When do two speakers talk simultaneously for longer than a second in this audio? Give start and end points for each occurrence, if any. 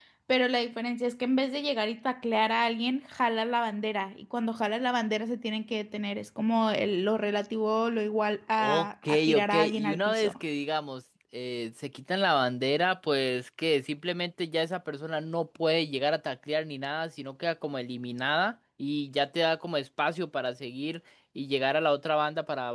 8.6-10.3

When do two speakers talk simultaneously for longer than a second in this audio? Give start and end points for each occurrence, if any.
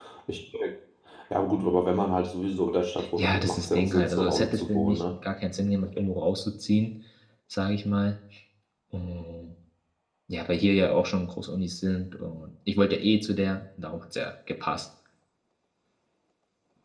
3.2-5.0

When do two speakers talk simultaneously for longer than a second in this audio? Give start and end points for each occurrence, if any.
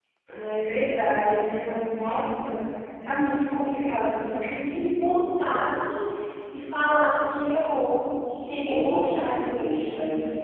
8.7-9.9

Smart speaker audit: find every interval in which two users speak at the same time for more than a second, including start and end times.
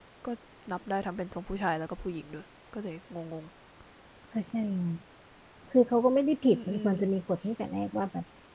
none

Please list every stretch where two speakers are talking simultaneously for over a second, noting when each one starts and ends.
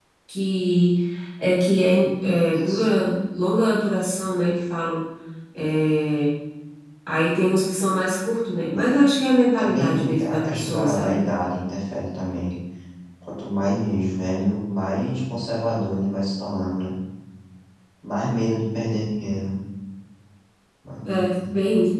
9.6-11.2

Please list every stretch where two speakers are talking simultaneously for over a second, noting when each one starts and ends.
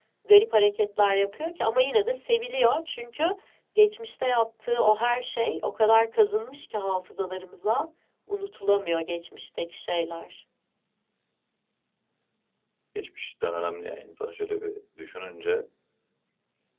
none

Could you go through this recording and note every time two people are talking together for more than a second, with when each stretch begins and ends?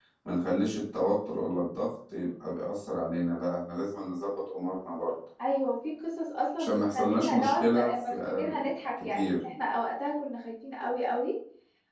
6.6-8.6

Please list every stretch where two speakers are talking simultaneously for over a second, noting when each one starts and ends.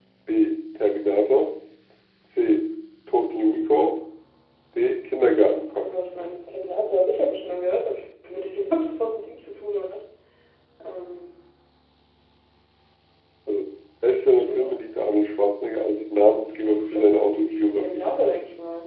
16.6-18.1

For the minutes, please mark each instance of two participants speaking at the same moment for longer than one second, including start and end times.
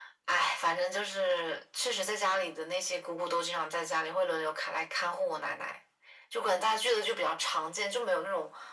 none

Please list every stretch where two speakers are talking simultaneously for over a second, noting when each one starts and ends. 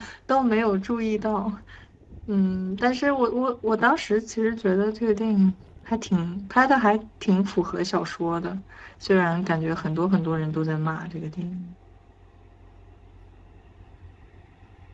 none

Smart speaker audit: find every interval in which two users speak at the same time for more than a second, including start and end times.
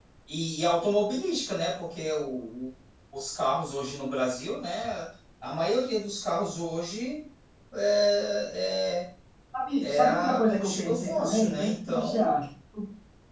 9.8-12.3

